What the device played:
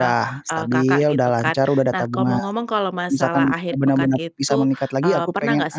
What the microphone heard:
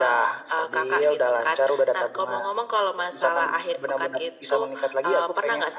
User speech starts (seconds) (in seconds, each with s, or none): none